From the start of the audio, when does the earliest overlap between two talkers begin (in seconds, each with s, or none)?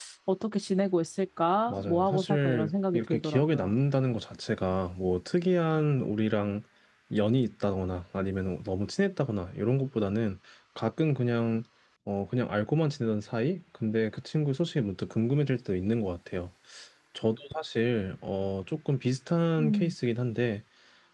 1.7 s